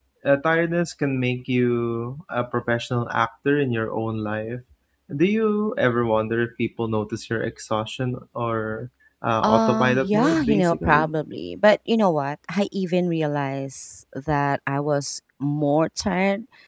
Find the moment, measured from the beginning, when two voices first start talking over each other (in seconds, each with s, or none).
9.4 s